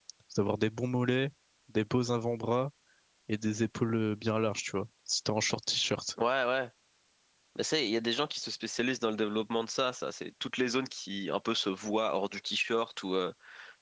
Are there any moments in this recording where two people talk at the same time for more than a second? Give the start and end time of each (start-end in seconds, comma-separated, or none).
none